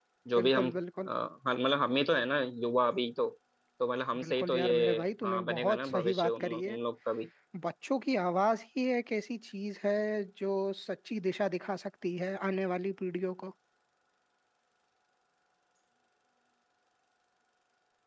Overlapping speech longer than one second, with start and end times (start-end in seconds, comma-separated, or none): 4.2-6.8